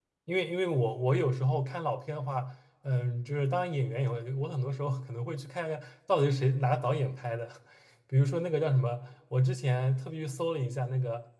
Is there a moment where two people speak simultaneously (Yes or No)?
No